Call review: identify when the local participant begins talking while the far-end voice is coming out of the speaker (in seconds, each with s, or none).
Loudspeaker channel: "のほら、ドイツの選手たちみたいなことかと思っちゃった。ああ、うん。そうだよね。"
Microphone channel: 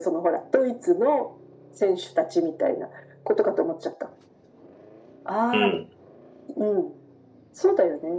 5.5 s